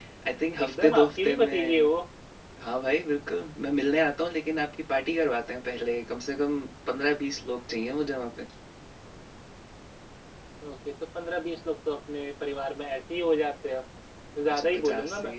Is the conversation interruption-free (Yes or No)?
No